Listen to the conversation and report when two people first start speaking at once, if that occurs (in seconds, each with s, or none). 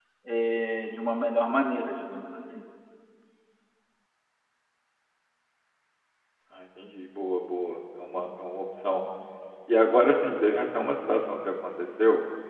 none